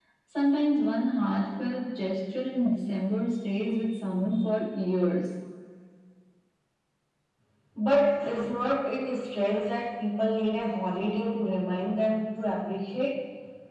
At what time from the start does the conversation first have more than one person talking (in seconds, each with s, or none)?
none